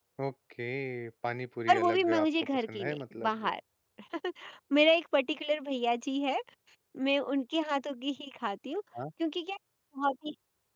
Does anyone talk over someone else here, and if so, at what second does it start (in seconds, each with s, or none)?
1.7 s